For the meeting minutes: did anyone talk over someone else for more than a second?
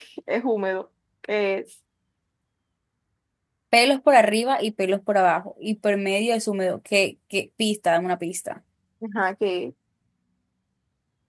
No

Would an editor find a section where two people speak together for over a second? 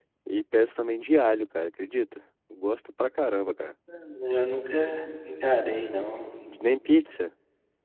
No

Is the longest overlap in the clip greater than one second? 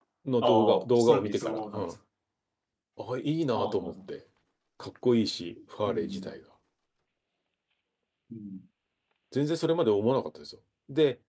Yes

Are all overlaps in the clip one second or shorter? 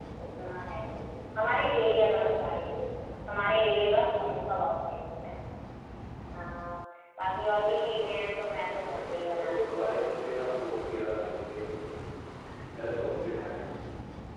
No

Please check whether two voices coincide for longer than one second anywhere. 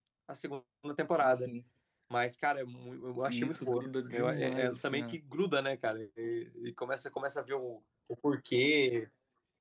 Yes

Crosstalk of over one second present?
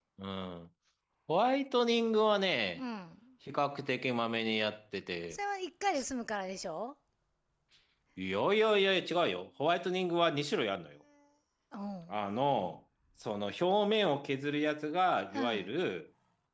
No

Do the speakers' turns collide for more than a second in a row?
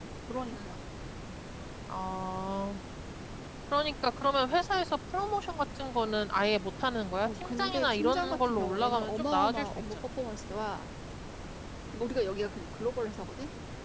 Yes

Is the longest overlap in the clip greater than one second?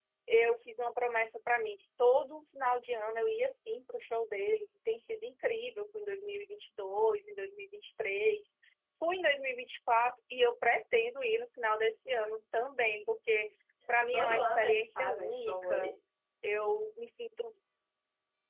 Yes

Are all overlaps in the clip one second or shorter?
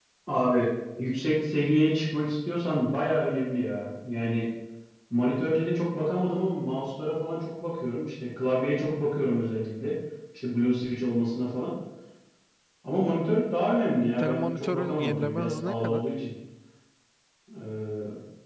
No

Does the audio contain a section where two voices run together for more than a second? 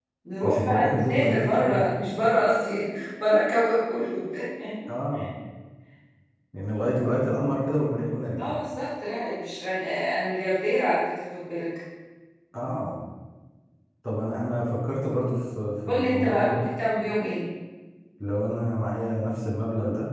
Yes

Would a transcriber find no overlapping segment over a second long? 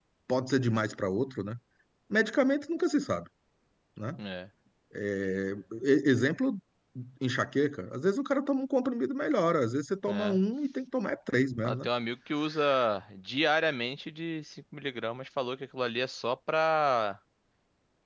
Yes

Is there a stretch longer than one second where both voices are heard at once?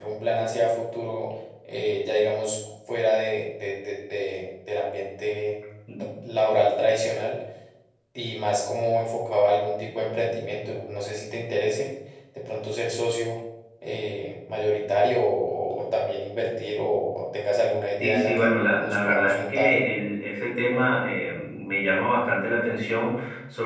Yes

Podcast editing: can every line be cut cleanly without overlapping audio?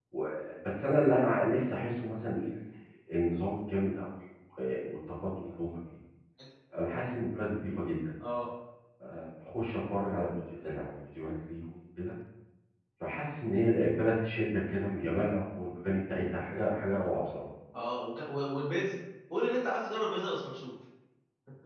Yes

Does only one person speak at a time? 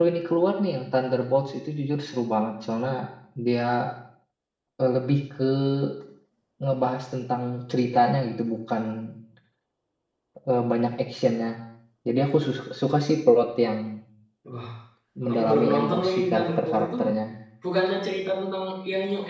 No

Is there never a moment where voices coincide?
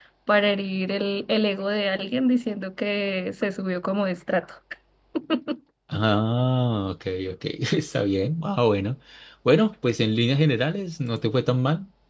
Yes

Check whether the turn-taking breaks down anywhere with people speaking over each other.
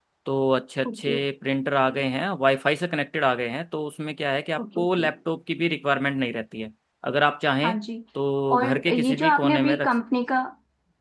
Yes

